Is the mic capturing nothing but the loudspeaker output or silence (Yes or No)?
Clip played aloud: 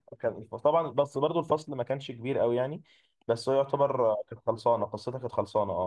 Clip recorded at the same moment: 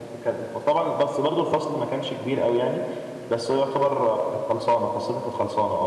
Yes